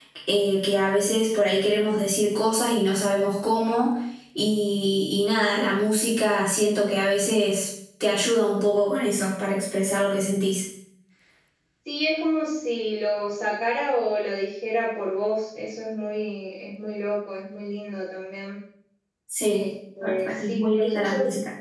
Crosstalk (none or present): present